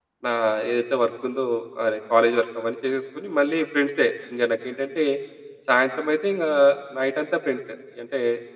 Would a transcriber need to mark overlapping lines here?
No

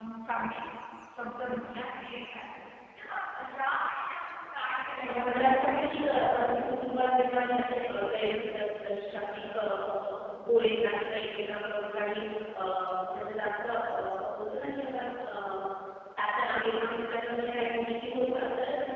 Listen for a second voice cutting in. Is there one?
Yes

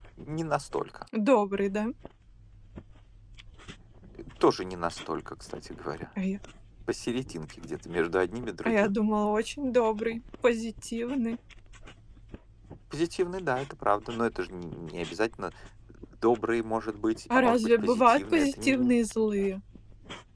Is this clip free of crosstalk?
No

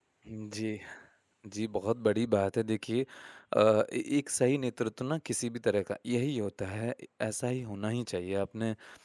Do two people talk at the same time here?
No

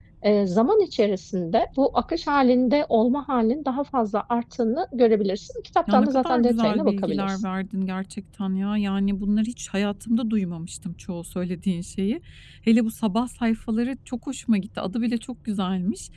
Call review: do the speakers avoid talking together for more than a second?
No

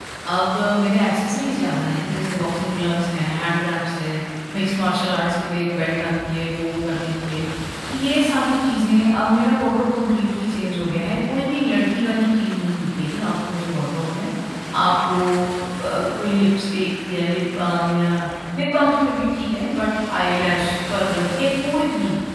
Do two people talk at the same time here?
No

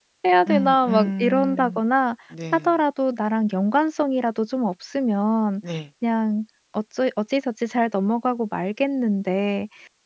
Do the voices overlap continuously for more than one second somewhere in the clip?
Yes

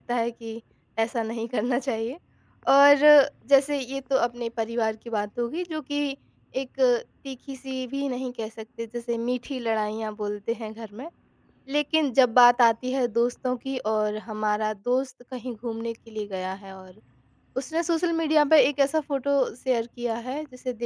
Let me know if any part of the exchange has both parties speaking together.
No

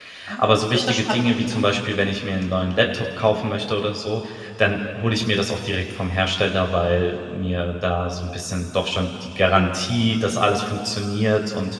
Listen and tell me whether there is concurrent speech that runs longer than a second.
Yes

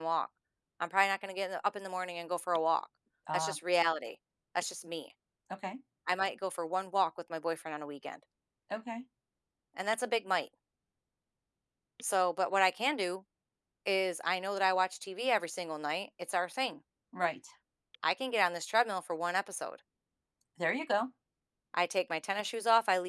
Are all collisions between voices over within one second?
Yes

